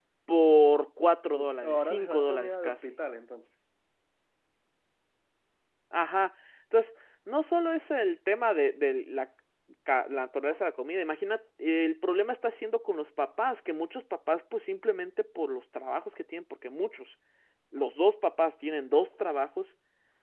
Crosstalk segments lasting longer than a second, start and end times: 1.3-3.0

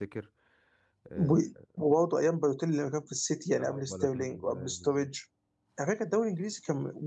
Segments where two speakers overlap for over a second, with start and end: 3.6-5.1

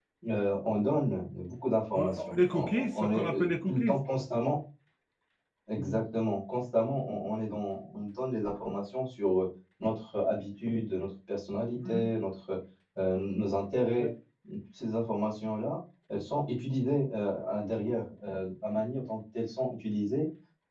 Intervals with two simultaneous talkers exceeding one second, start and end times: 1.9-4.0

